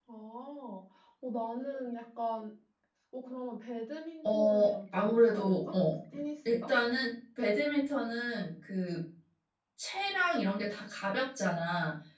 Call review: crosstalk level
present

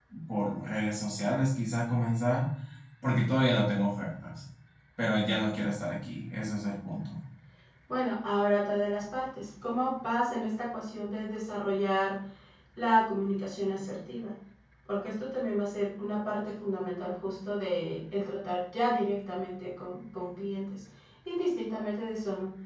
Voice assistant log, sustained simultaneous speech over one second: none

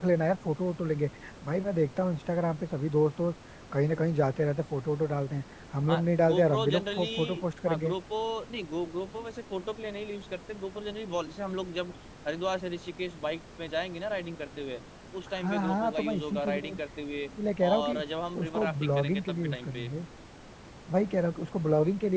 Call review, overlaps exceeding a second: present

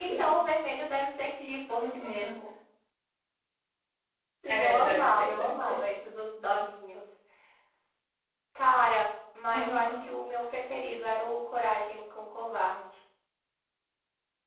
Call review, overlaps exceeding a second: present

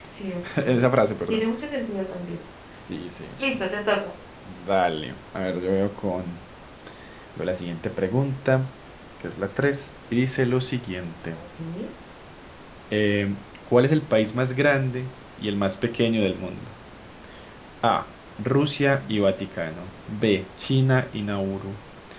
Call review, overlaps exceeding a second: none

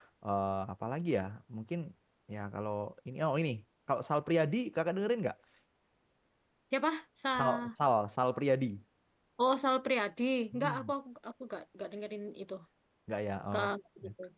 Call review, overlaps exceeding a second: none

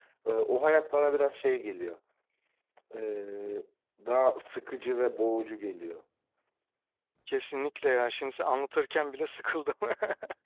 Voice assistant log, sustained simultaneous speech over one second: none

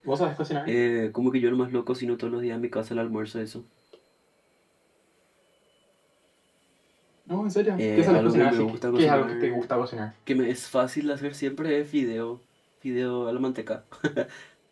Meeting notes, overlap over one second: present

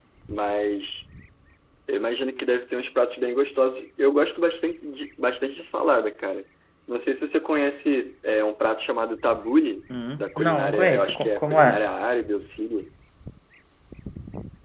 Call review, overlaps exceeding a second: present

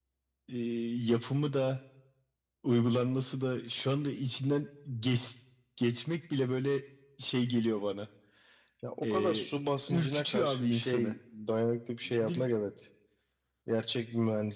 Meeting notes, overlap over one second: present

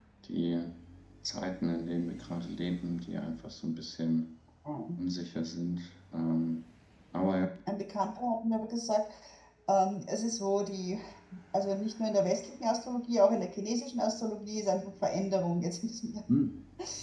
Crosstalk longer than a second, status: none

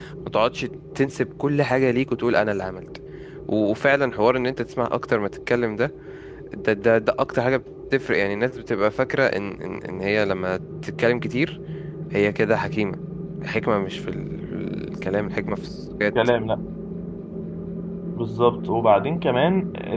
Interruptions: none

